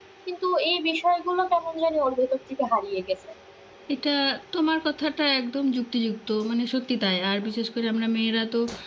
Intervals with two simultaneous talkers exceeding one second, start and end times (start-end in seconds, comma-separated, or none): none